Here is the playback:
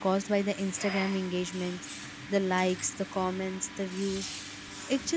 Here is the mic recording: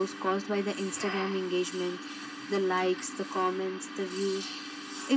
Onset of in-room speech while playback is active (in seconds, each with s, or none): none